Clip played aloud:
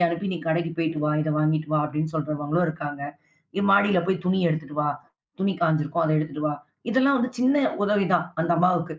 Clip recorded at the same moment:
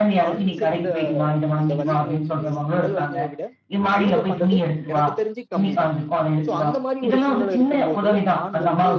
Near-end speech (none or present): present